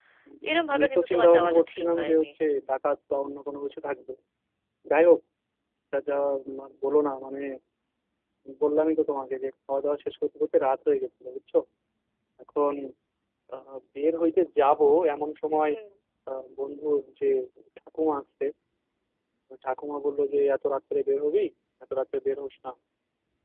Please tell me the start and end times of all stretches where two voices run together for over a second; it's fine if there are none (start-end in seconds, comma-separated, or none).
0.7-2.2